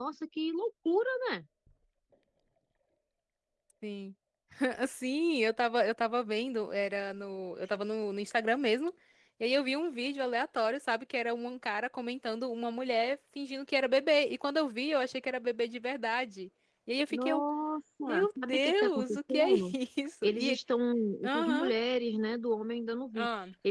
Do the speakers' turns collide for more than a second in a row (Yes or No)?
Yes